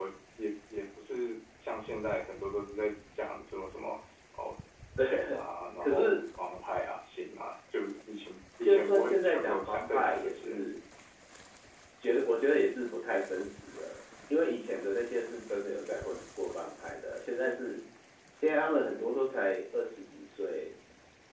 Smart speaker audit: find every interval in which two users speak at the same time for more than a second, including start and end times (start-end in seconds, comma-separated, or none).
8.6-10.6